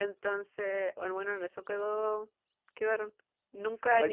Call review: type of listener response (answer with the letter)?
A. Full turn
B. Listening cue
A